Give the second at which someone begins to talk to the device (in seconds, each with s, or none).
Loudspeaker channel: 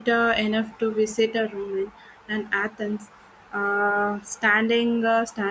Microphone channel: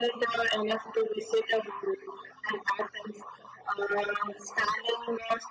none